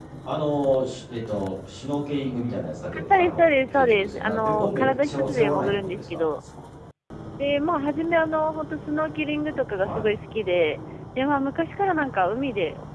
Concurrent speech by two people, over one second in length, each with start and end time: 3.0-6.2

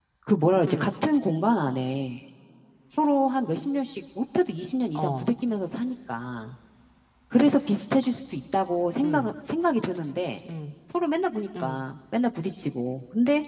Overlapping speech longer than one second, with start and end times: none

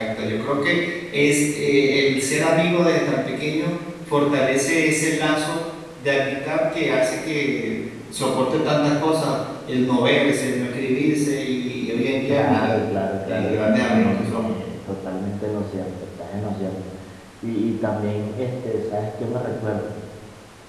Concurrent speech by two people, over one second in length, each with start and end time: 13.2-14.6

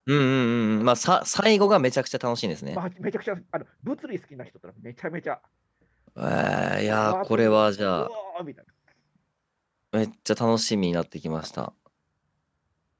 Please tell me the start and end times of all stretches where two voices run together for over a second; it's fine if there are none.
6.9-8.1

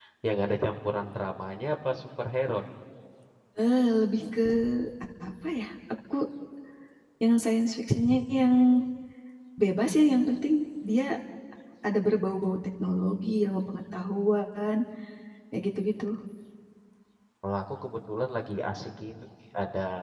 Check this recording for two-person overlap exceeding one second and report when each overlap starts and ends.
none

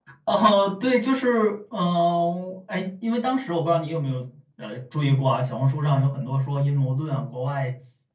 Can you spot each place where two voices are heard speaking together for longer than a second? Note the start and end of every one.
none

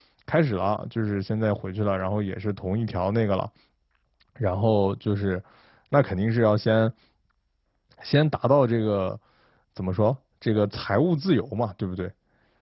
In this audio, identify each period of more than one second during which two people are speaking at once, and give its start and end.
none

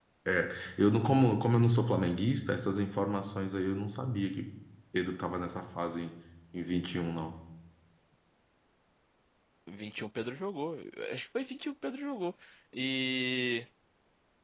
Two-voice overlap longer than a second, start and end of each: none

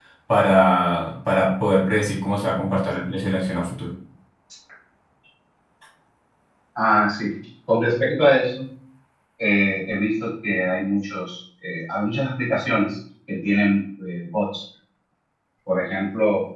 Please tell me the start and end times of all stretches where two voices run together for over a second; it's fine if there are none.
none

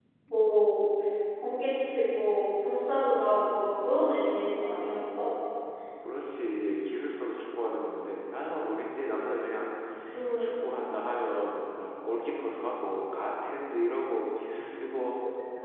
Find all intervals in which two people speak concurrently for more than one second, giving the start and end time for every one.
none

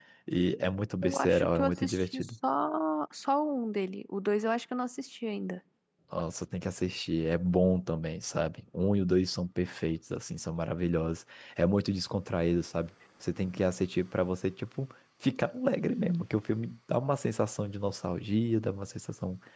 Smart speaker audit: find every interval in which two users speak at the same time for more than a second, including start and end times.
1.0-2.3

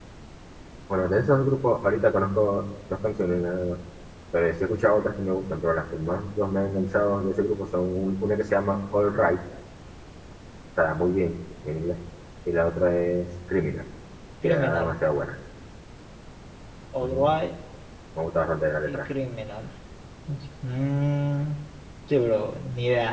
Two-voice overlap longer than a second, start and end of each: none

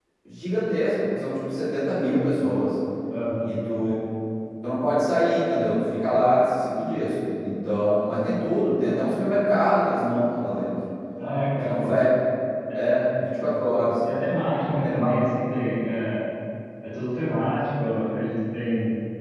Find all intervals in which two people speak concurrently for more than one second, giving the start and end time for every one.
none

